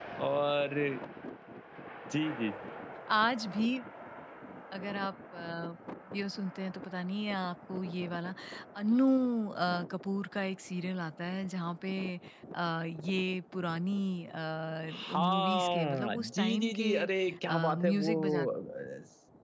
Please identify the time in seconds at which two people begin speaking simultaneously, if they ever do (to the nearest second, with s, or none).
15 s